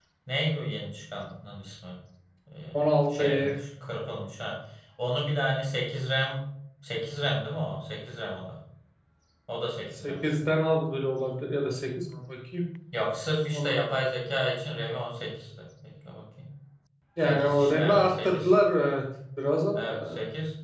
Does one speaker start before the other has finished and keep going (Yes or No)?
Yes